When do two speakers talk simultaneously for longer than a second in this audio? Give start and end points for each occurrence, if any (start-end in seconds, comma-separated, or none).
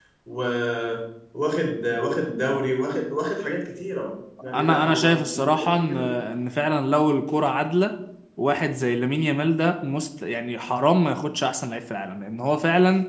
4.5-6.0